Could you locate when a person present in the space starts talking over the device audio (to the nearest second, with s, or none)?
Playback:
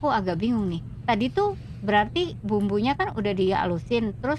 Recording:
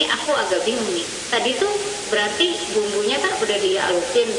none